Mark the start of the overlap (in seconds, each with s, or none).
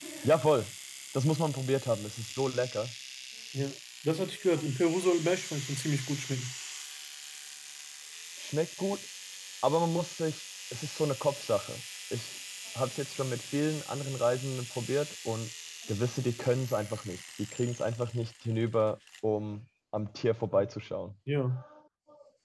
none